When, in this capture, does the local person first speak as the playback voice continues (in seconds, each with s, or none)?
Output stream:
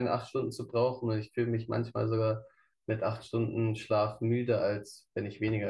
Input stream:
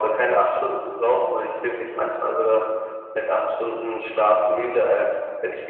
none